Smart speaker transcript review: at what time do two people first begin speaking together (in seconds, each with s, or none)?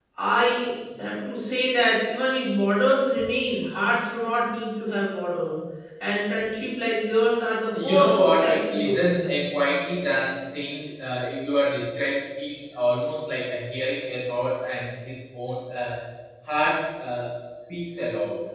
7.7 s